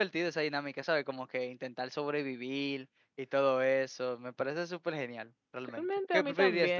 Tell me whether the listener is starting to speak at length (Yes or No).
Yes